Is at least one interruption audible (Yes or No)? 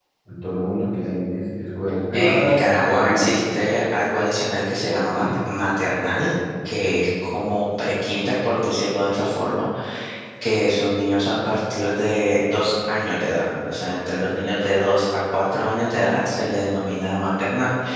Yes